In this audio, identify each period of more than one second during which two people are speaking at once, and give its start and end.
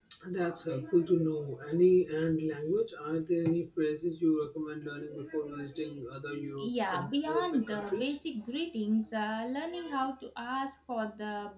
6.6-8.2

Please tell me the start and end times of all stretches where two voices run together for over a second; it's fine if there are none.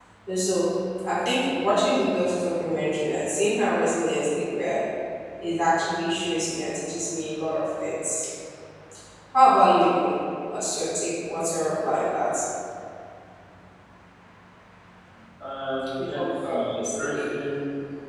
16.0-17.4

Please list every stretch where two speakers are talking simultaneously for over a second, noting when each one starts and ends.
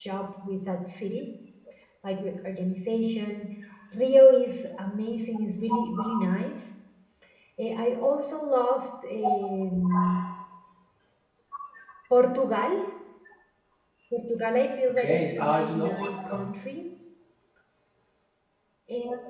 14.9-16.5

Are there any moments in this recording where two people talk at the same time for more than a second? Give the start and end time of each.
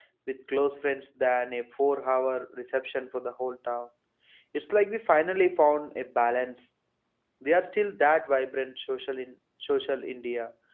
none

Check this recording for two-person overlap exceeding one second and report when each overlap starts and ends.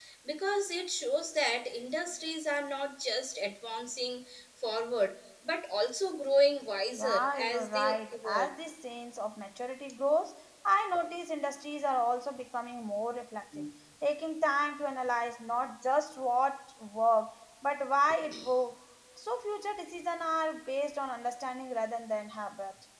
7.0-8.5

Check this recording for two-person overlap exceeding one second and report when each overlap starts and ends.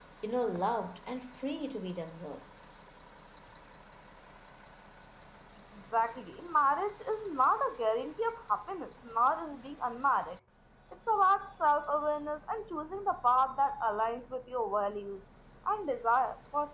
none

